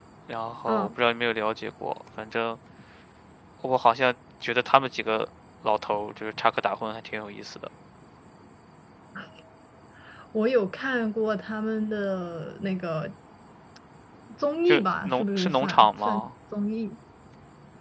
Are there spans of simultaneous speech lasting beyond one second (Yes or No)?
Yes